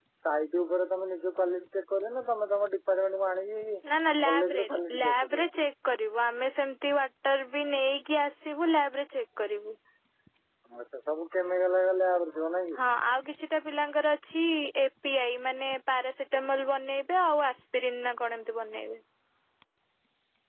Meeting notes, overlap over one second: present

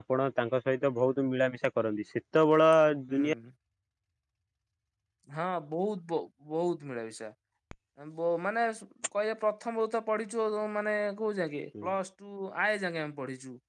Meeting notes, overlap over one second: none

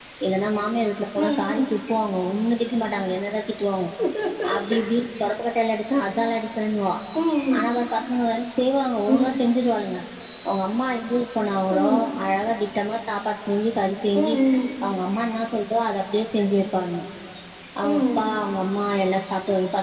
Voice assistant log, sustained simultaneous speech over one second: none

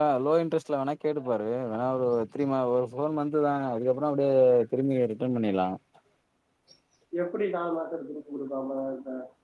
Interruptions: none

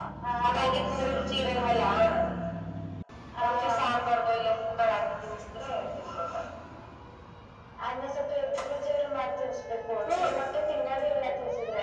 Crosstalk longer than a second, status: none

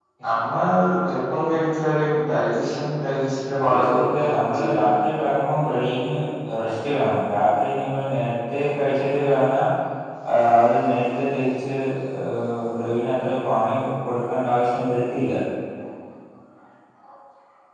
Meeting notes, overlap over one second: present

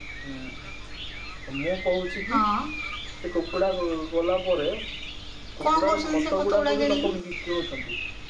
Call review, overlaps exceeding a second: present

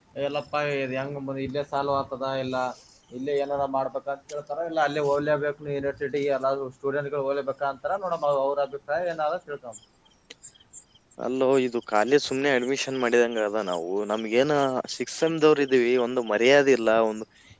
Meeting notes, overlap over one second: none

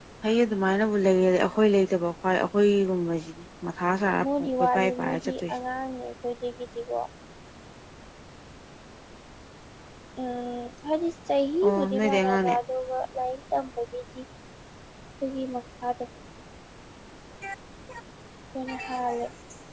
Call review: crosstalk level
present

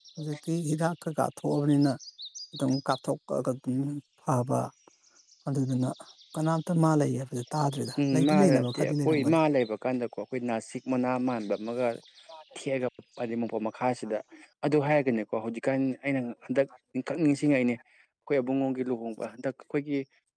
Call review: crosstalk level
present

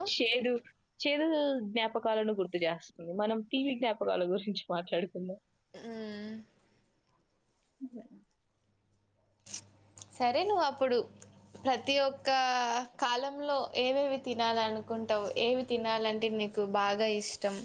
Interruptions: none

